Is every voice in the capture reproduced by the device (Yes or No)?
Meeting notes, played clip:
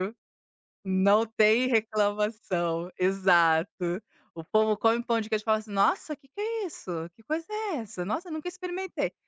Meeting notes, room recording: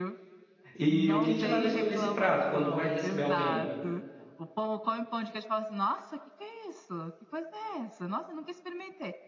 No